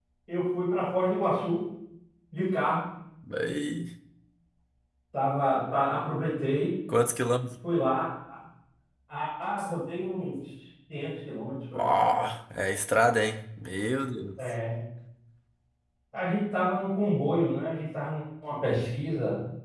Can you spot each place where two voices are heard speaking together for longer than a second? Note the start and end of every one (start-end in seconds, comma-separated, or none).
none